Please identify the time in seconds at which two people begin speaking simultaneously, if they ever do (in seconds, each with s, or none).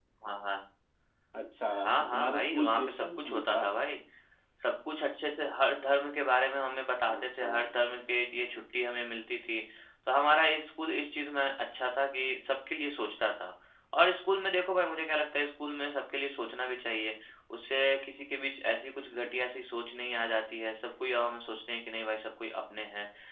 1.8 s